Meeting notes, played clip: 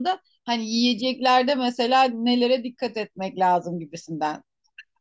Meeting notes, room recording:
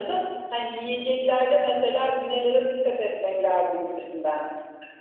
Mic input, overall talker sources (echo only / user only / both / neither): echo only